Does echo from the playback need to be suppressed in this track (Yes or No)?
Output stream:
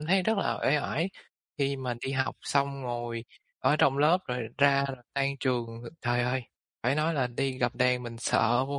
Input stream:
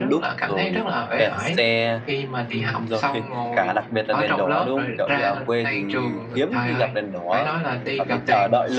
Yes